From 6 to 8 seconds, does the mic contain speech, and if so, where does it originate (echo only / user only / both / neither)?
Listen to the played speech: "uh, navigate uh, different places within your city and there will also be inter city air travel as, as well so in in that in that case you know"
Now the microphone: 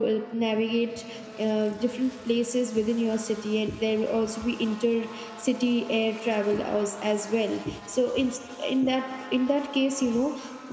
echo only